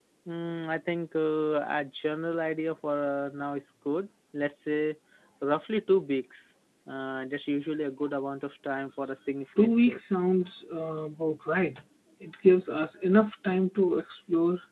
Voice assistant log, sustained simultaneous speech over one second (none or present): none